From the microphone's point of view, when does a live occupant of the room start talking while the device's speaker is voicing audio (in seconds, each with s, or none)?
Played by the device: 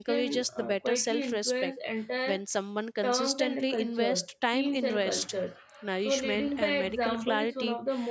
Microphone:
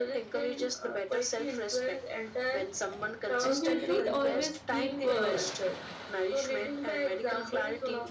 3.4 s